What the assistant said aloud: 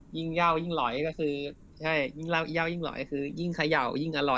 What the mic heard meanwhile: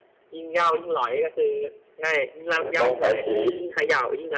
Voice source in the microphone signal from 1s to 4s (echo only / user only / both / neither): both